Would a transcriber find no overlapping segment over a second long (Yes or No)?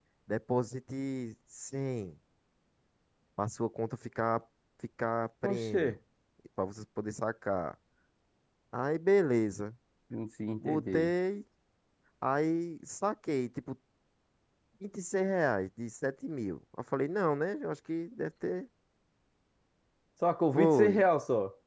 Yes